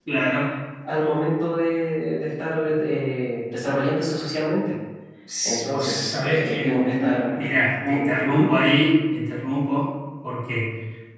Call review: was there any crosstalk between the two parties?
Yes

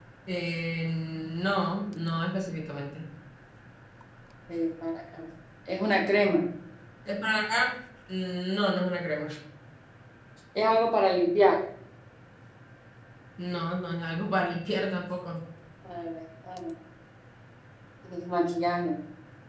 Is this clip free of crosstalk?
Yes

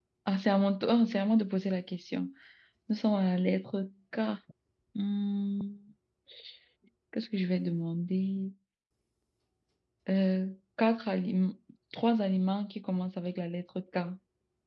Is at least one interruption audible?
No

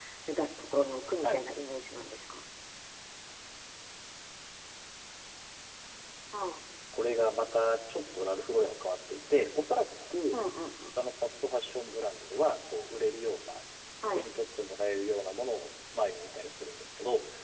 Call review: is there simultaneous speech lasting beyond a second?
No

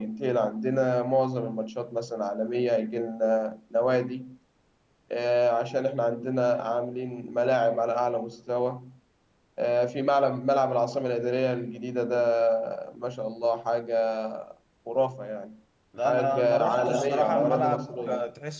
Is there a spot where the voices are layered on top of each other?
Yes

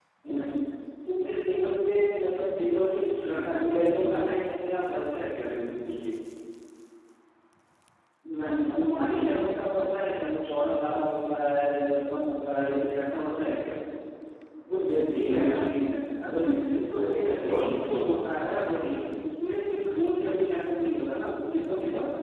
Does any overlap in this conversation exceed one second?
Yes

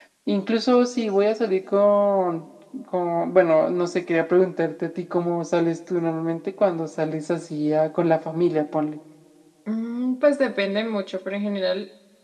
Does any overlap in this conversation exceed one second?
No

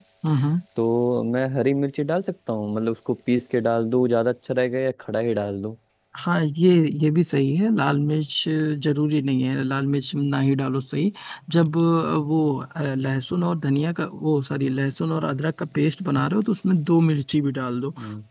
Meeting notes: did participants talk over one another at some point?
No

